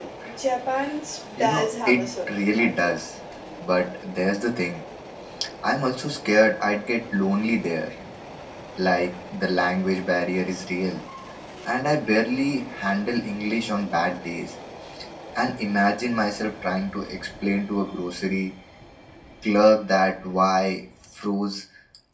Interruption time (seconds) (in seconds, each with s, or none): 1.4 s